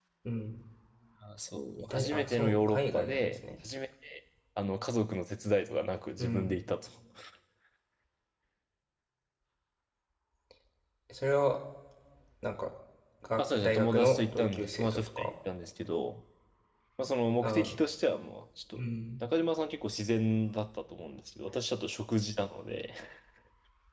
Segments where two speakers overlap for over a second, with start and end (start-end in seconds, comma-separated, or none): 1.8-3.4, 13.4-15.3